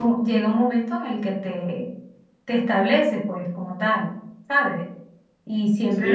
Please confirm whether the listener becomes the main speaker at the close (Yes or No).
Yes